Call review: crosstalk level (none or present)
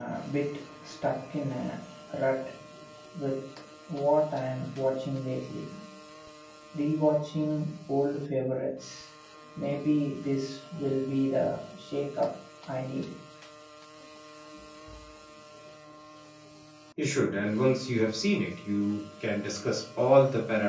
none